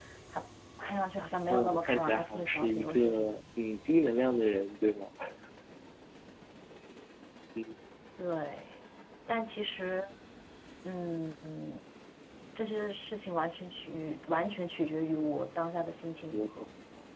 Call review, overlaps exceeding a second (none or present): present